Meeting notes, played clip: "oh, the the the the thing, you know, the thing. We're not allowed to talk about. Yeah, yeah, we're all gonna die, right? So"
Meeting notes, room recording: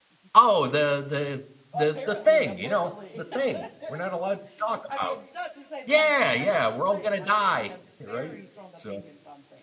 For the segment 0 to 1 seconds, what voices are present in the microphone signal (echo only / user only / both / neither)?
echo only